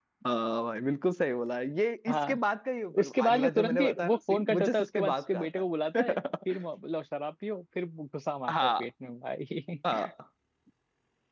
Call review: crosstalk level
present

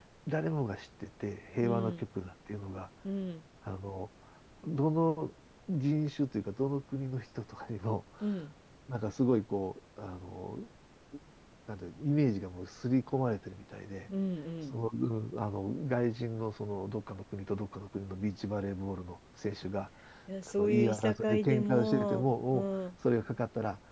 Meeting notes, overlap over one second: present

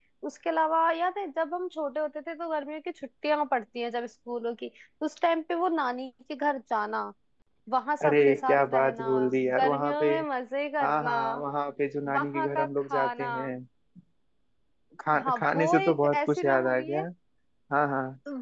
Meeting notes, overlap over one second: present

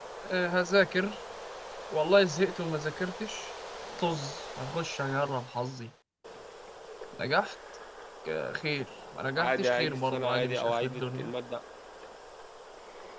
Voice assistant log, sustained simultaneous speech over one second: present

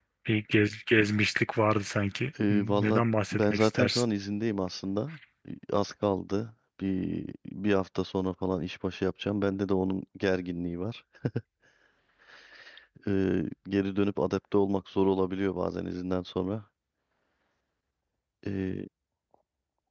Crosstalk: present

